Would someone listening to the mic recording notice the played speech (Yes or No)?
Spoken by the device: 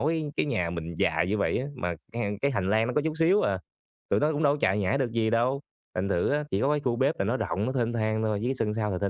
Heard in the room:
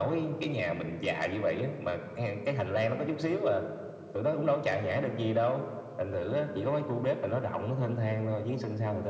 Yes